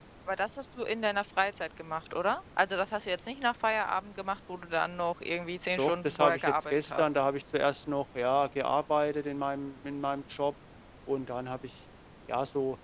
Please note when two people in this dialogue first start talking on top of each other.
5.8 s

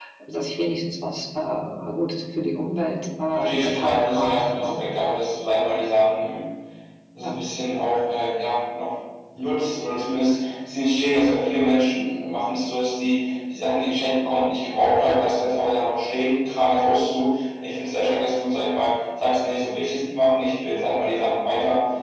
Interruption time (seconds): 3.3 s

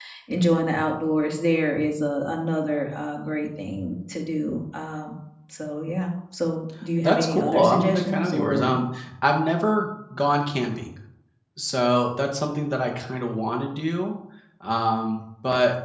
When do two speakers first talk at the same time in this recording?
7.0 s

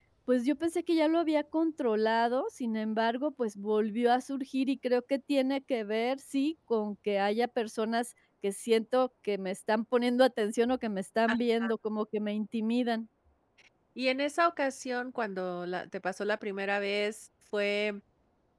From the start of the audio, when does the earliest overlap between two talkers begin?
none

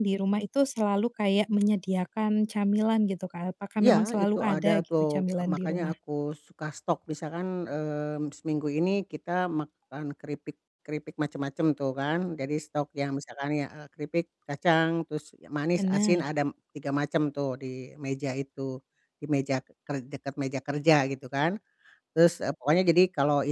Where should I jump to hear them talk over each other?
3.8 s

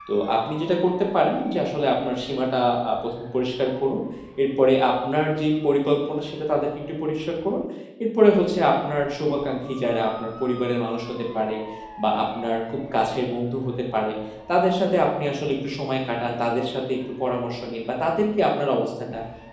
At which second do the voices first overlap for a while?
none

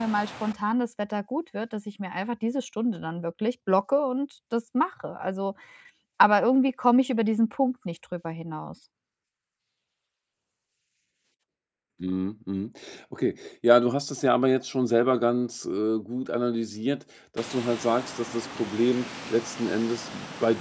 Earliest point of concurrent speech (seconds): none

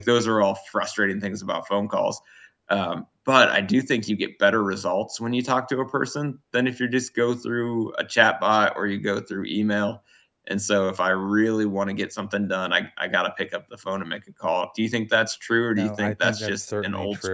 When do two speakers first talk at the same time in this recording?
15.8 s

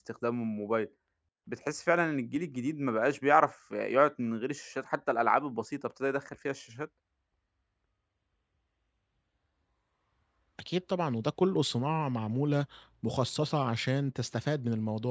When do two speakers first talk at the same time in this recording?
none

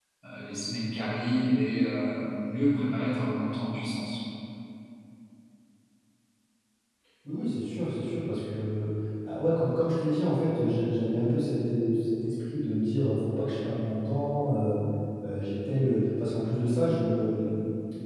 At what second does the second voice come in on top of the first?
none

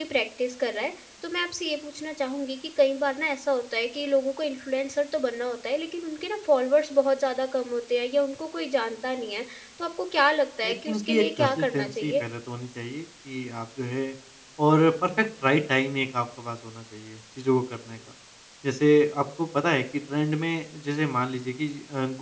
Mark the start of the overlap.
10.6 s

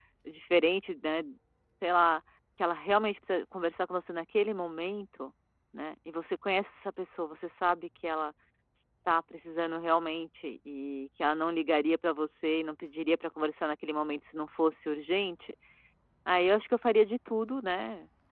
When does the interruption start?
none

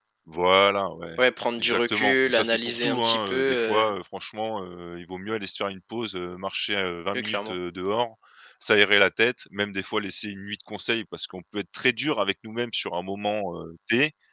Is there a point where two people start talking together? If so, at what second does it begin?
1.6 s

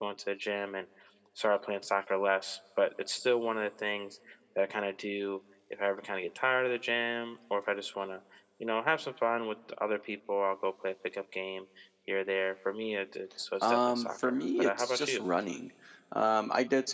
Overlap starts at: 13.6 s

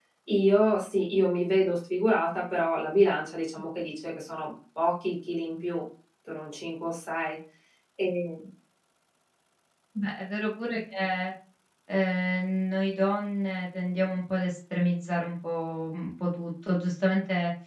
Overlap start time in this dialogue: none

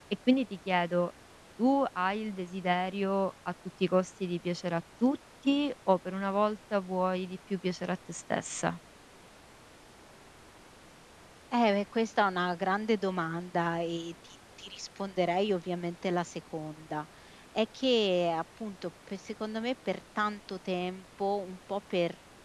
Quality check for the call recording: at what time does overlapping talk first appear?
none

